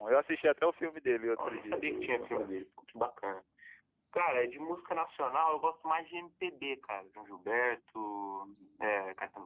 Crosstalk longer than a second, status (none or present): present